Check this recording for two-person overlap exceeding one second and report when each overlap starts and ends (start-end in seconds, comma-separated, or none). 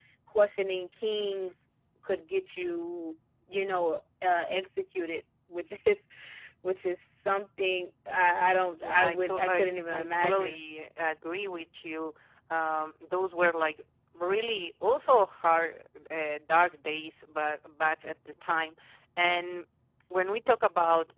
8.8-10.6